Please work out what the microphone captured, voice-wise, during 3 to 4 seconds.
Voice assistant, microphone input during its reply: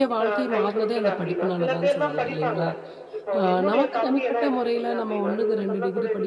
both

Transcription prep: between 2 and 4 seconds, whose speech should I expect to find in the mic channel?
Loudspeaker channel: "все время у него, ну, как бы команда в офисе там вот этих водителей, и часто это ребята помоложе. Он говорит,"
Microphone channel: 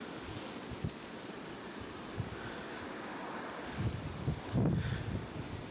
neither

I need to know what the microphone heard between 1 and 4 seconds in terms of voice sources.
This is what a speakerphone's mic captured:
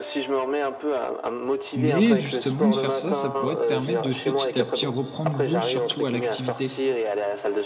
both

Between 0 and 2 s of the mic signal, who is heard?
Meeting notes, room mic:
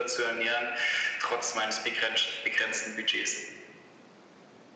echo only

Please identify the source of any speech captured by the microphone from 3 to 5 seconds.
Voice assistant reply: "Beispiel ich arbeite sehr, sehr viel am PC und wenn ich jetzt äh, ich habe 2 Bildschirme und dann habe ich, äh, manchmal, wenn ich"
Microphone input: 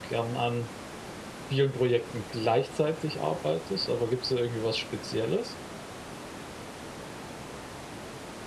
user only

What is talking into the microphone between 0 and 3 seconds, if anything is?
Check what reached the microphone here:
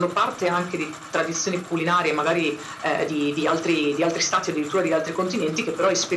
echo only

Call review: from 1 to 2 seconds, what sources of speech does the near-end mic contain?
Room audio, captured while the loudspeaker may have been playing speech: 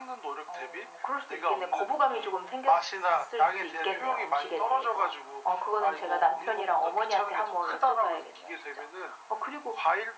echo only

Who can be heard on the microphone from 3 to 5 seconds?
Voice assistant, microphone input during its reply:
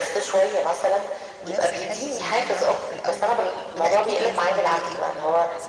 both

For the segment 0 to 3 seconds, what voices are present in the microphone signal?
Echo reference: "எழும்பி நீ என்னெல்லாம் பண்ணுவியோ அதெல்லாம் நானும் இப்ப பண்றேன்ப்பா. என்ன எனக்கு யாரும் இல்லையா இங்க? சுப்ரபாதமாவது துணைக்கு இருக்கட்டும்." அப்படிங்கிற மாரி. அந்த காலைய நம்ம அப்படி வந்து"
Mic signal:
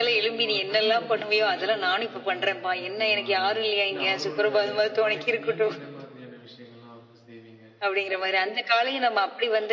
both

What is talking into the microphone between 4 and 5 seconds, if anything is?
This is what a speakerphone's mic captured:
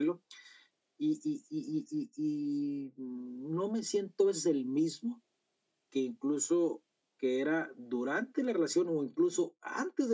echo only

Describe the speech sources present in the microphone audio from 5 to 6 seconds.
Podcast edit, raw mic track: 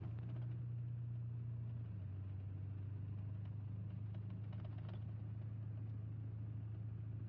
neither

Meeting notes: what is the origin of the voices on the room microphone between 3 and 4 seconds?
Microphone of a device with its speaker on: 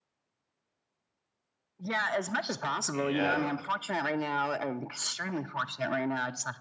both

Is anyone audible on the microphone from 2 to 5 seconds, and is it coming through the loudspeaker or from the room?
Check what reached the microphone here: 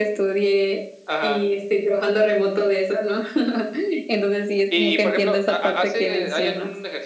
echo only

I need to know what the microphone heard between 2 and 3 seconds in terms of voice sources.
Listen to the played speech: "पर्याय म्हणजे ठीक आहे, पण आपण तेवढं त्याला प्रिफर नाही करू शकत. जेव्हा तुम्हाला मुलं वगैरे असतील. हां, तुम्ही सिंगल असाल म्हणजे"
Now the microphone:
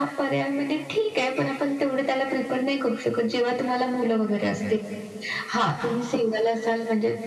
echo only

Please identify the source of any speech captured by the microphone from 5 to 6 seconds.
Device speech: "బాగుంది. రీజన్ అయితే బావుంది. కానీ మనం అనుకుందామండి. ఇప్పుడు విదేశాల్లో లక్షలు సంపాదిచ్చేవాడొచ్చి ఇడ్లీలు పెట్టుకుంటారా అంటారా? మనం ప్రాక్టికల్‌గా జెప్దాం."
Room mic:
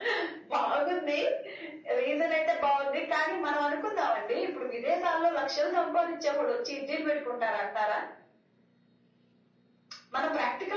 echo only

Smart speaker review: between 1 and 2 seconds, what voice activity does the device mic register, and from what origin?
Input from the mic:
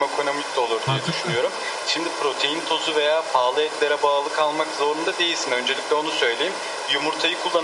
both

